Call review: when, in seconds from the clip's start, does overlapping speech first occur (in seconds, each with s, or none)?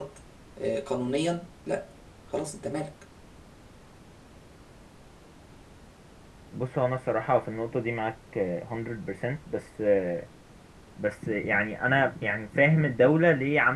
none